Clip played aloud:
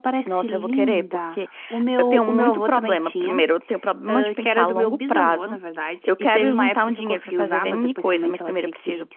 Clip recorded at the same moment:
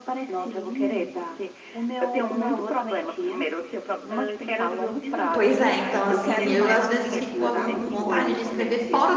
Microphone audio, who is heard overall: both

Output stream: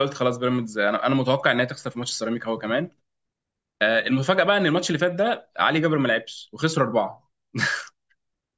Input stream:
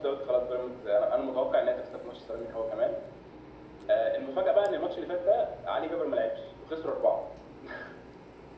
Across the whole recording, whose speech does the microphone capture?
echo only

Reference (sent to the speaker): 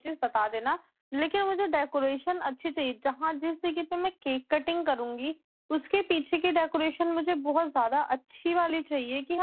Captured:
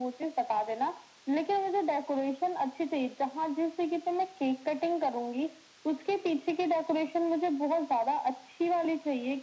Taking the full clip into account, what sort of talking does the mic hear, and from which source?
echo only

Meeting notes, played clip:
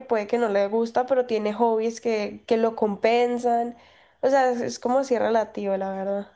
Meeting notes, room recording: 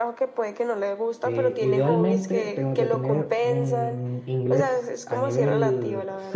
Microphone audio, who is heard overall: both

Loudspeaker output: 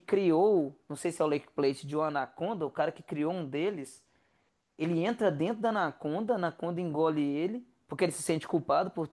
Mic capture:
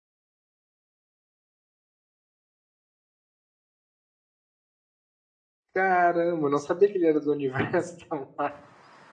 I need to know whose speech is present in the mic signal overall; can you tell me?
user only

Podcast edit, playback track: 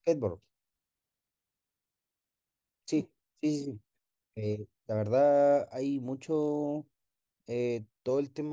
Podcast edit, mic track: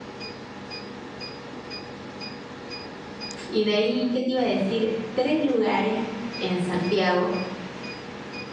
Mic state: user only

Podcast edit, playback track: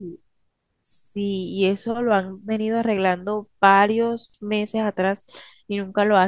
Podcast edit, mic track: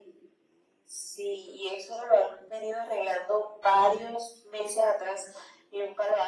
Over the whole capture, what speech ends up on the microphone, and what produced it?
echo only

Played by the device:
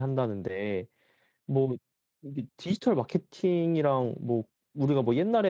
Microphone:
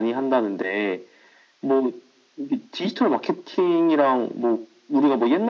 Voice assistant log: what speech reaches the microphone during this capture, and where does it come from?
echo only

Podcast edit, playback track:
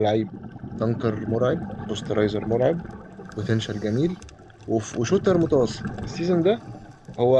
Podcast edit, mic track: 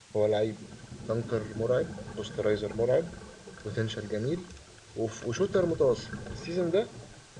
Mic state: echo only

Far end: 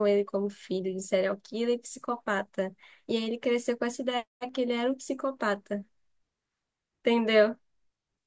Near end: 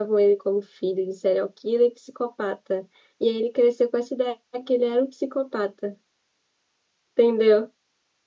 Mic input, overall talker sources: echo only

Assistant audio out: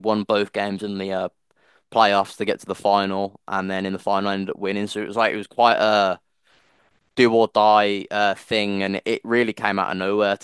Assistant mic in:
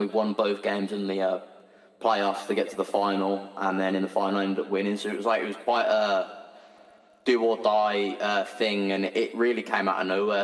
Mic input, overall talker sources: echo only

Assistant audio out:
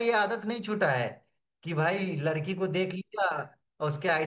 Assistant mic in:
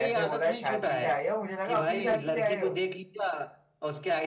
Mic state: both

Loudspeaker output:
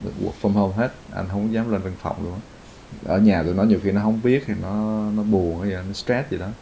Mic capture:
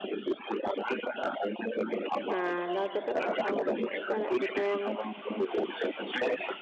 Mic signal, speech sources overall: both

